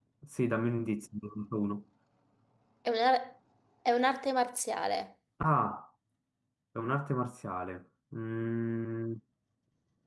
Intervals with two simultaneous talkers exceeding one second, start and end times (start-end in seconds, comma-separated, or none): none